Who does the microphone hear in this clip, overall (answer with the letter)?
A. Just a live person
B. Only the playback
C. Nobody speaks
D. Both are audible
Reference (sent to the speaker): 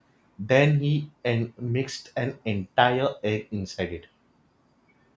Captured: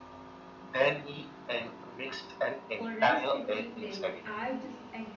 D